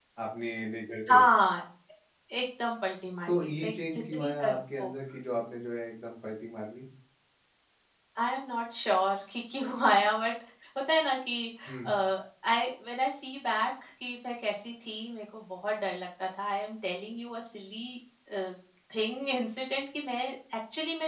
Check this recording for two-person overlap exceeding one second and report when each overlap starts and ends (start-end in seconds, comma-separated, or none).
3.3-4.5